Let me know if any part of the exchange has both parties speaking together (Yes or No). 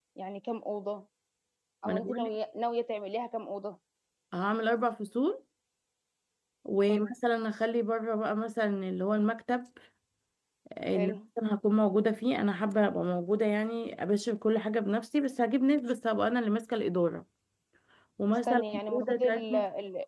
Yes